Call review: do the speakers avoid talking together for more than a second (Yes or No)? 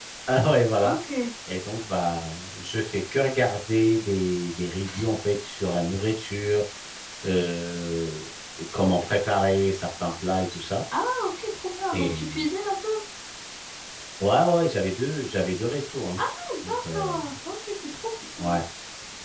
Yes